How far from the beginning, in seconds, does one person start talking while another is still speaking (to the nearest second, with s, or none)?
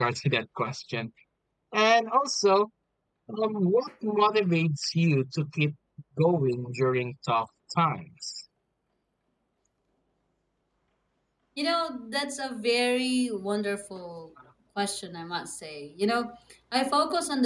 none